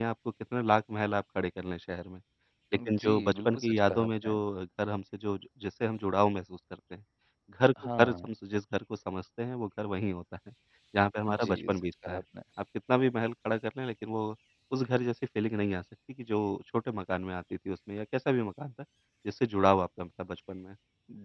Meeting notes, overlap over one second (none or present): present